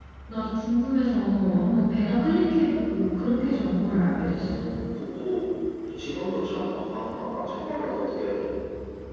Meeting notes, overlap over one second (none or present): none